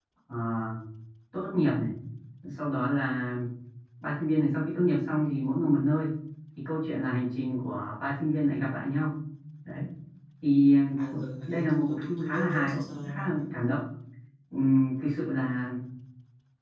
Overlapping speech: Yes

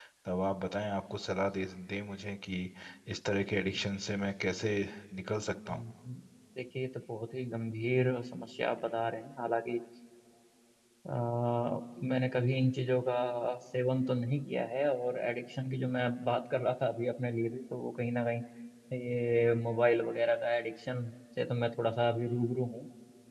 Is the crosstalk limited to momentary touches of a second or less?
Yes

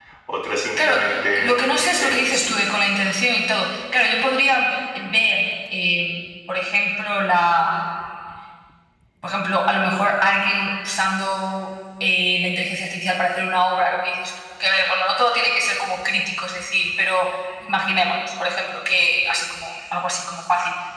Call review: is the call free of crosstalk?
No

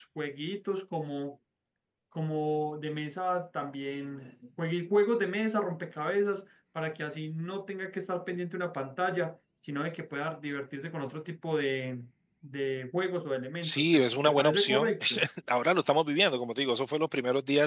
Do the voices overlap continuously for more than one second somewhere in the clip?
Yes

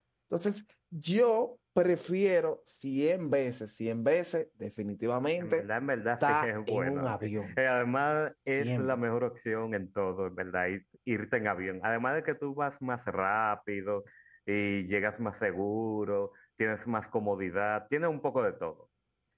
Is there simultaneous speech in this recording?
Yes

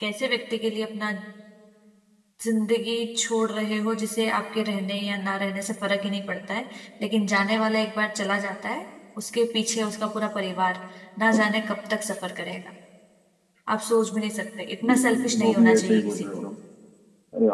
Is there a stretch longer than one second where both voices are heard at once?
Yes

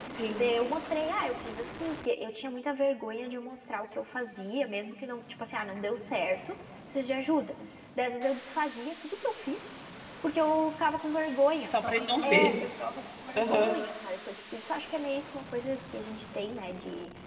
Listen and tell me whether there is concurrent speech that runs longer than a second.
No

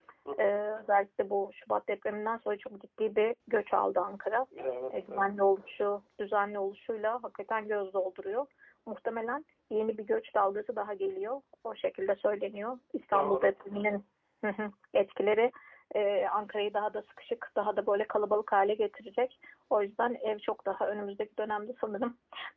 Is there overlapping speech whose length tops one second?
No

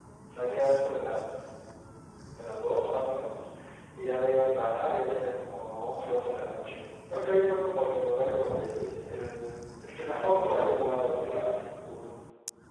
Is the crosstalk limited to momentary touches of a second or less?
No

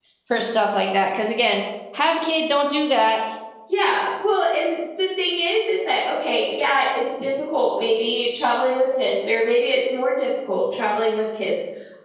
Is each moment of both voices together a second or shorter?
Yes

